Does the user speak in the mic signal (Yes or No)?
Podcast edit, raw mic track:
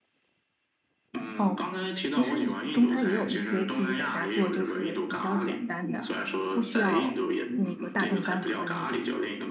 Yes